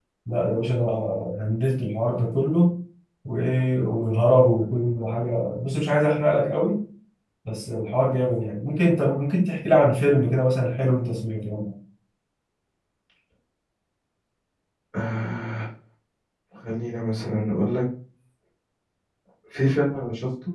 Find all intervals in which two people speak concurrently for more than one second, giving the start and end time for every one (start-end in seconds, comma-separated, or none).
none